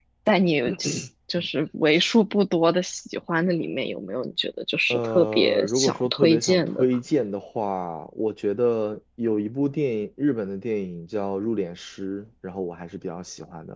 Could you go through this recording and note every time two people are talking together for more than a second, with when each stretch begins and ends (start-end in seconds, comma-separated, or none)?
4.9-6.8